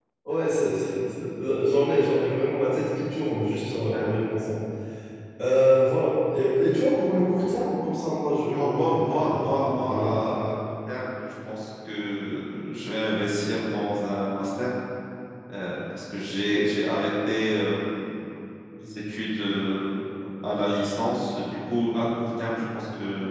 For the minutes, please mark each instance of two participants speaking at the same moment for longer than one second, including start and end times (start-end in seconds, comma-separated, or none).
8.5-10.4